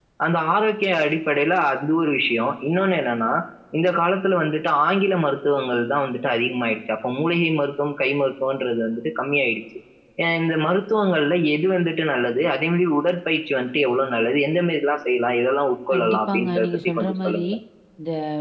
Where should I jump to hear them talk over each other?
15.9 s

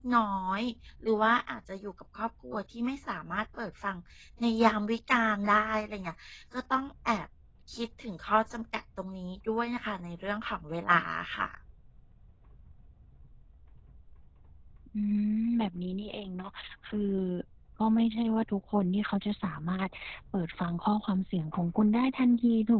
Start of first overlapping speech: none

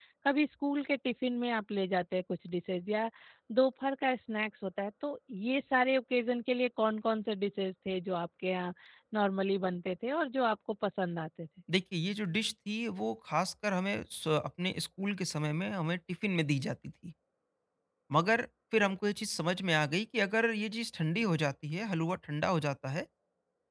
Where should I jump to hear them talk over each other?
none

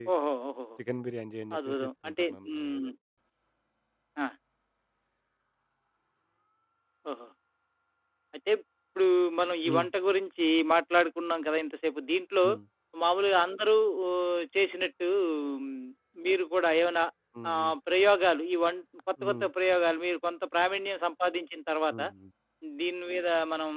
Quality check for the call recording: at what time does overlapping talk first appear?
1.6 s

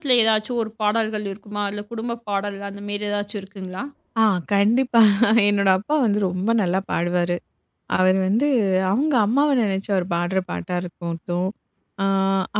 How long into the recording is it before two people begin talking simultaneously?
none

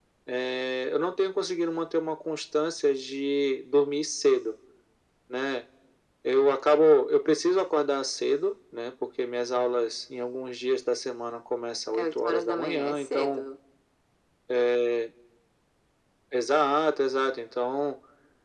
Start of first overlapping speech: 11.9 s

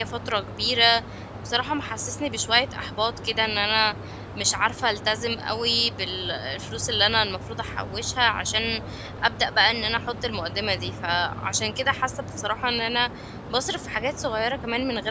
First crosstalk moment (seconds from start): none

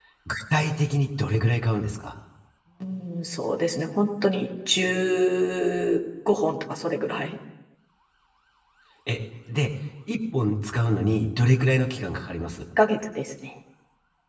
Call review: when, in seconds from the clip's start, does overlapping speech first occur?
none

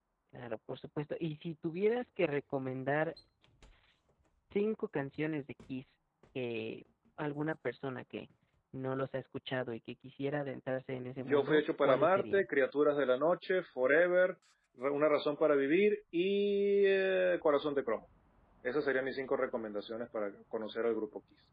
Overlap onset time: 11.2 s

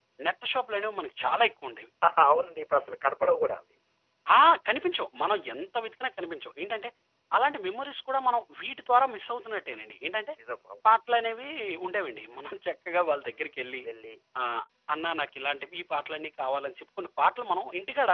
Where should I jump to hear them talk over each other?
none

